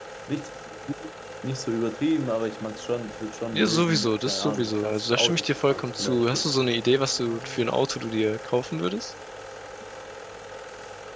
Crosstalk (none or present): present